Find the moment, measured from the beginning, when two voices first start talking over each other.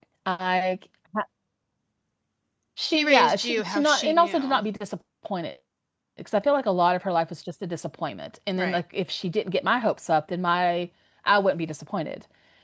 2.9 s

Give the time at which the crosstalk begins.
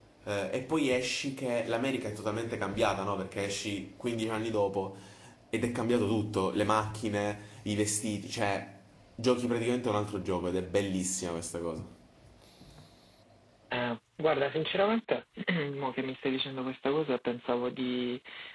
none

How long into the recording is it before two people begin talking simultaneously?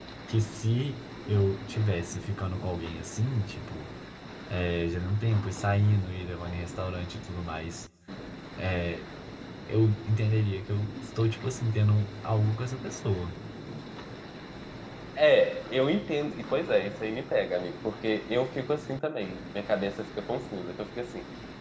none

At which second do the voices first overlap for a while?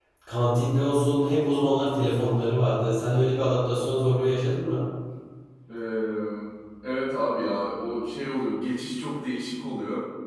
none

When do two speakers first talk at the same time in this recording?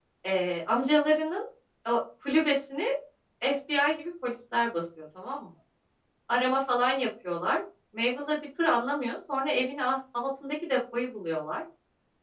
none

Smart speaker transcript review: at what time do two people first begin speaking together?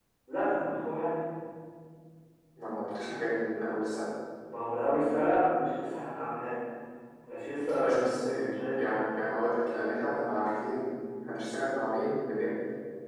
7.8 s

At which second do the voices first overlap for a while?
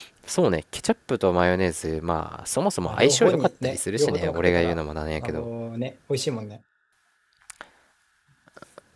2.9 s

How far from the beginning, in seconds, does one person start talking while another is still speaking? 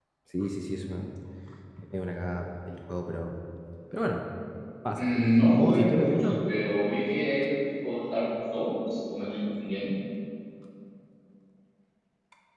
5.0 s

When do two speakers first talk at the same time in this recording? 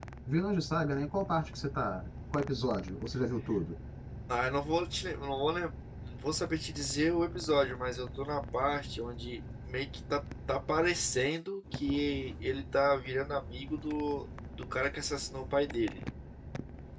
none

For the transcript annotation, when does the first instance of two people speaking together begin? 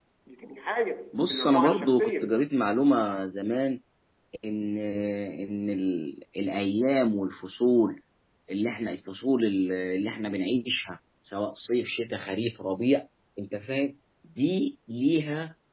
1.1 s

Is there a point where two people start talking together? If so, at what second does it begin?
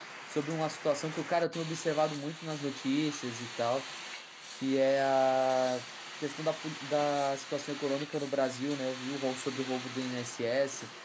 none

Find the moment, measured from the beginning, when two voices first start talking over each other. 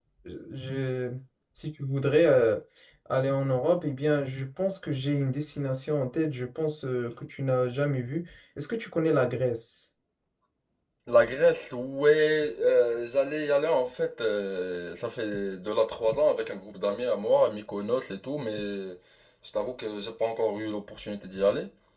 none

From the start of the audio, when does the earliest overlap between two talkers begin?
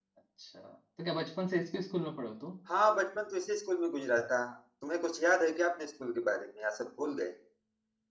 none

